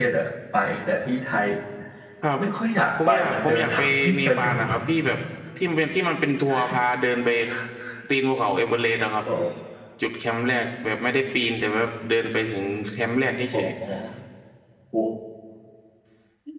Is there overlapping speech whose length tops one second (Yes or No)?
Yes